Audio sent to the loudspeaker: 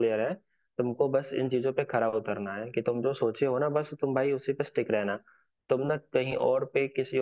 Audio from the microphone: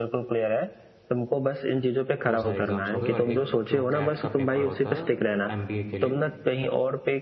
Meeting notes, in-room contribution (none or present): present